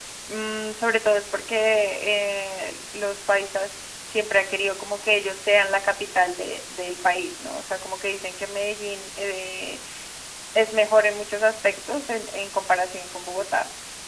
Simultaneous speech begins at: none

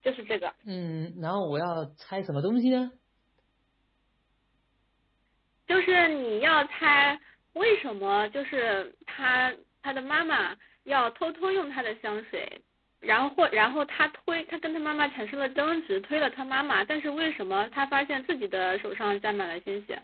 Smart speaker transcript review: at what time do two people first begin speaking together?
none

